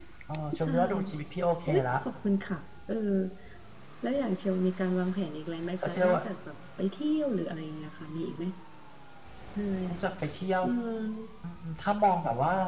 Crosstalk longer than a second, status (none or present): none